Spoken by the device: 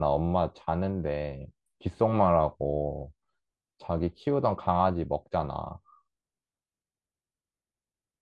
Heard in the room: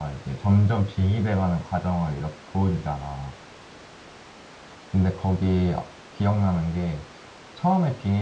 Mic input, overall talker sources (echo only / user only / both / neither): user only